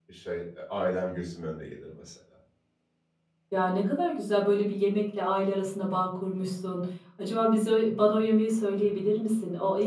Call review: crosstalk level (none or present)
none